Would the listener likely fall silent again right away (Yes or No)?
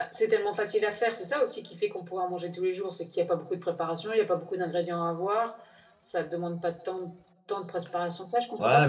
No